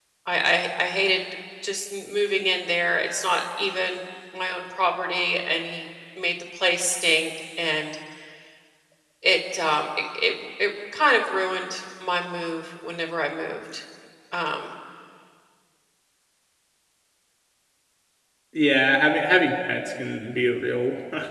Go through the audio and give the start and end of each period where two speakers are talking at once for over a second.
none

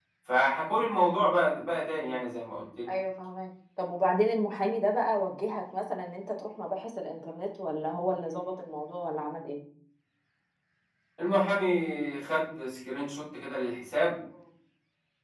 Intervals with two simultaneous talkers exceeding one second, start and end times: none

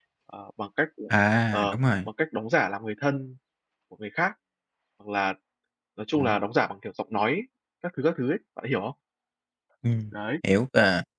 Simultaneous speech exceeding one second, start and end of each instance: none

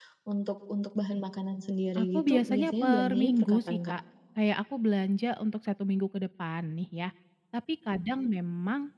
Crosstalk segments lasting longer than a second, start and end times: 2.0-3.9

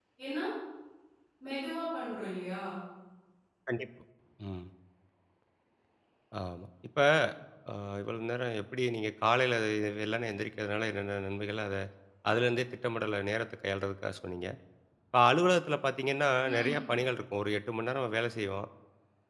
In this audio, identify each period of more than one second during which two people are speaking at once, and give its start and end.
none

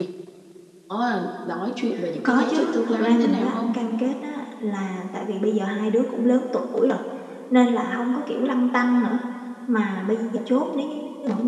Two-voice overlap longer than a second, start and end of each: 2.2-3.7

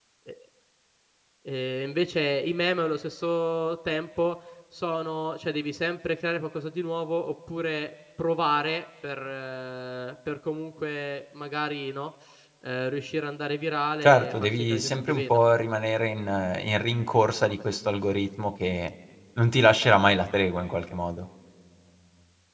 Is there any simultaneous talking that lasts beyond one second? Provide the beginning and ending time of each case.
14.0-15.4

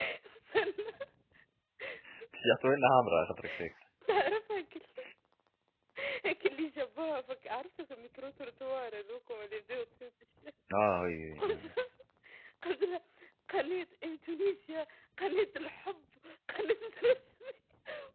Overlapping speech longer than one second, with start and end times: none

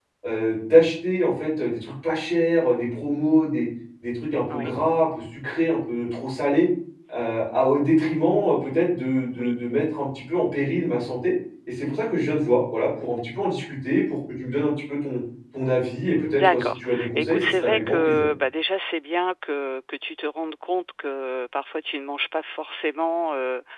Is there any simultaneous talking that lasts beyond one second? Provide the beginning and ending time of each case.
16.1-18.3

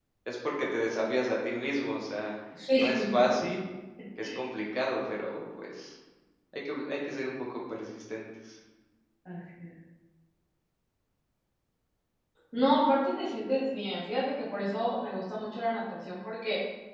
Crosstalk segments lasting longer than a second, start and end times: none

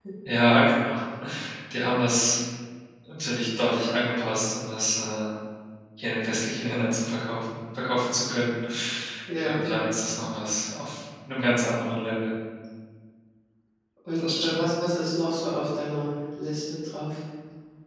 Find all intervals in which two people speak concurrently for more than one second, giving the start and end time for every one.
none

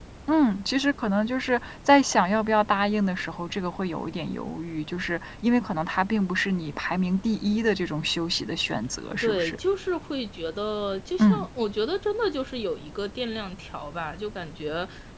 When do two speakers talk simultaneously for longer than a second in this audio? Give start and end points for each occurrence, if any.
none

